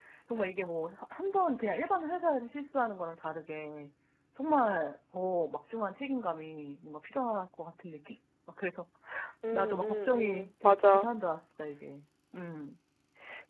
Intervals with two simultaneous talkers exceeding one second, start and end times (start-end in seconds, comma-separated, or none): 9.5-11.1